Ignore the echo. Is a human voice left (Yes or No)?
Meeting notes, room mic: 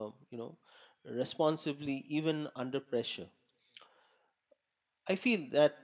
Yes